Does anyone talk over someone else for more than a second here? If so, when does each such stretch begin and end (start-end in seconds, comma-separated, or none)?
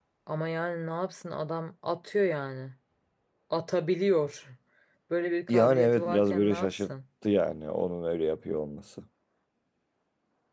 5.5-6.9